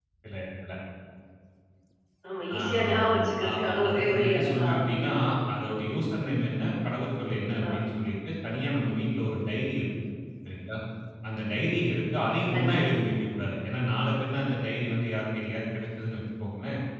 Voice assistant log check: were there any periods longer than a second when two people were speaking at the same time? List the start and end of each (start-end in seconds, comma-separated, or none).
2.6-5.1